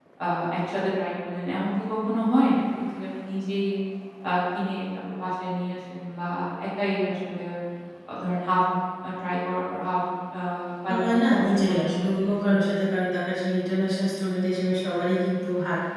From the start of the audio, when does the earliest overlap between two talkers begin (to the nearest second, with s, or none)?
11 s